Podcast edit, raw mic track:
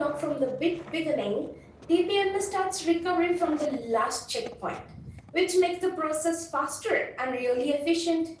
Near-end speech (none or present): none